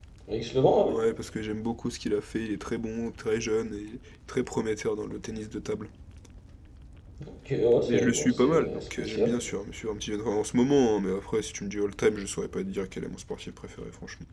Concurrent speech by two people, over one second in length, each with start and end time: 7.9-9.4

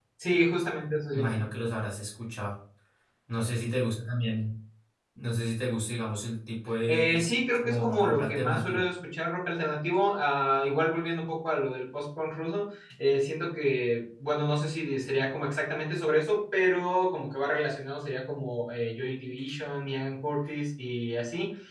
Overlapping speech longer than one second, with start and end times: 6.9-8.8

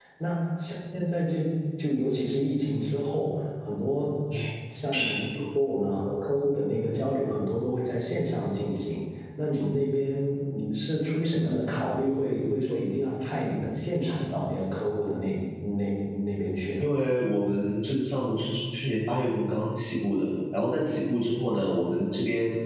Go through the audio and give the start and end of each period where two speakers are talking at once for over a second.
none

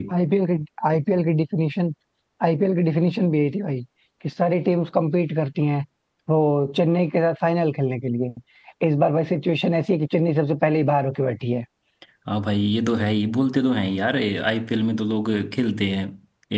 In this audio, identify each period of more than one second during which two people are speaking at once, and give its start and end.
none

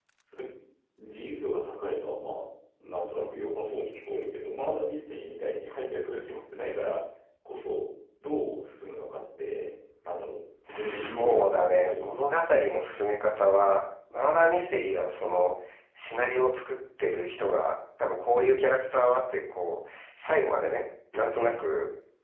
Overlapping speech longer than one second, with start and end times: 10.7-12.1

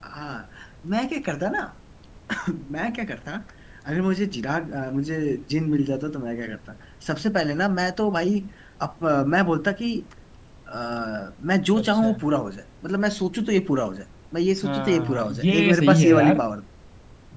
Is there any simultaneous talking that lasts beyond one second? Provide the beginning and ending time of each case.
14.6-16.4

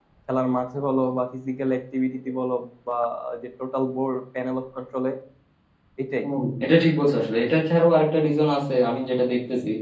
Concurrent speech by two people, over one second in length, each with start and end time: none

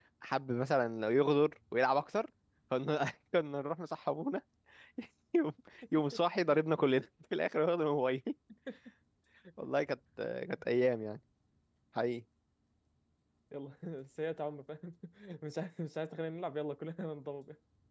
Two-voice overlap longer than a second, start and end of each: none

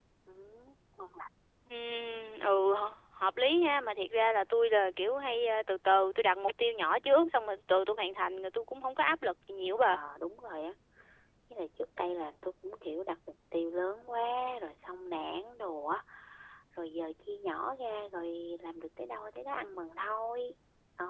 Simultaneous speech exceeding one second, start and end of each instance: none

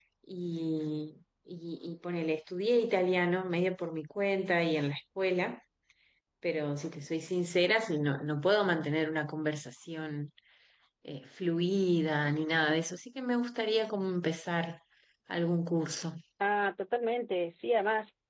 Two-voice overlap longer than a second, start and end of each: none

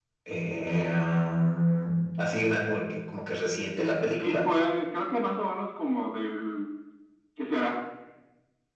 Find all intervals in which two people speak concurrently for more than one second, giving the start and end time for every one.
none

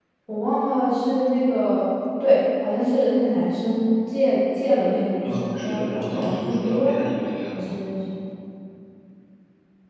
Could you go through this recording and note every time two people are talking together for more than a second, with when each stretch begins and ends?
5.2-7.0

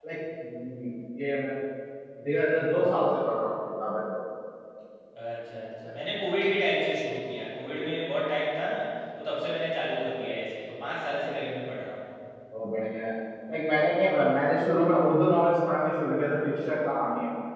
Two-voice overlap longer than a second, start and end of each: none

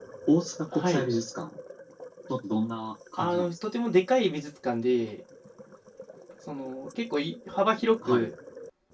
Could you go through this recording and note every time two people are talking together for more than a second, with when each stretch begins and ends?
none

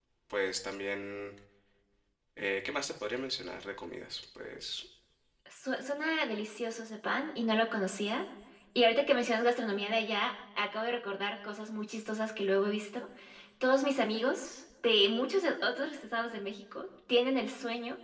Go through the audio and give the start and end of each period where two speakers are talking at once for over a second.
none

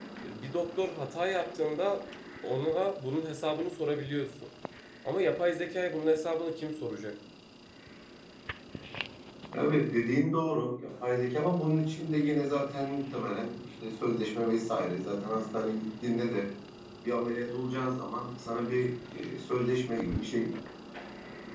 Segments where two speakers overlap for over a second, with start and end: none

